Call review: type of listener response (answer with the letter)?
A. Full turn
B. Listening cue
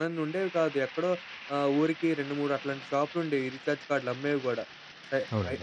B